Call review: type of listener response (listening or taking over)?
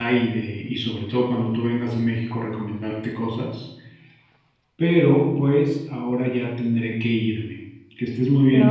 taking over